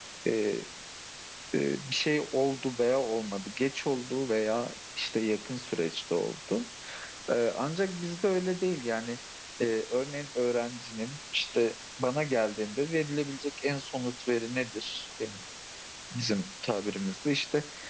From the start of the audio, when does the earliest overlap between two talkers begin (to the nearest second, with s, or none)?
none